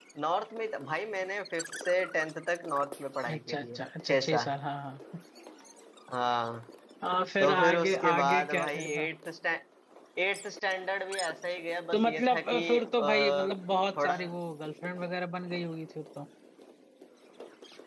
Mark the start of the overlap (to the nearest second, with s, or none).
3 s